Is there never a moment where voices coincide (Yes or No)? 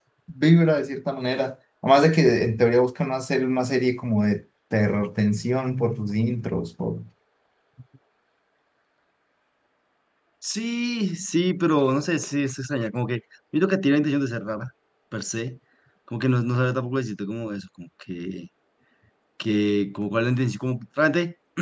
Yes